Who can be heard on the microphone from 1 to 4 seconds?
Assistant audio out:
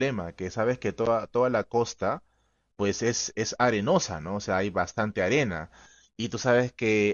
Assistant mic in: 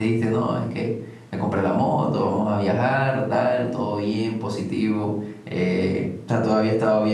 user only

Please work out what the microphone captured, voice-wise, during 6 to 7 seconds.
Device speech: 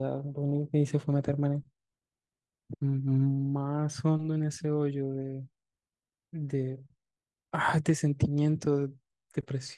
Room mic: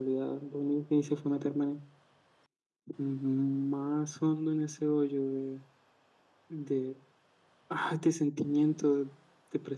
echo only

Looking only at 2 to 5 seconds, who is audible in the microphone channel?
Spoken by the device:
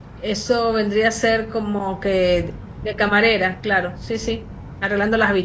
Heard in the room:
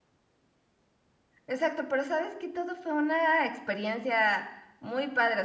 user only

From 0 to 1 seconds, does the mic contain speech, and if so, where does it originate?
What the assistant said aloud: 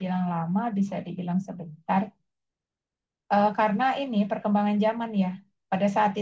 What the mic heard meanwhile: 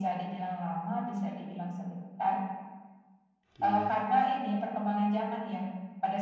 echo only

